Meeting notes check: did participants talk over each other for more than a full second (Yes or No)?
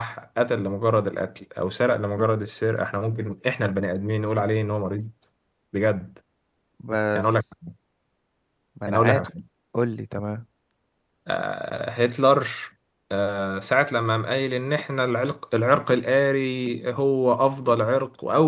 No